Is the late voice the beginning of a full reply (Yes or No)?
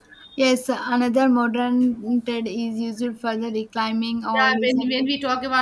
Yes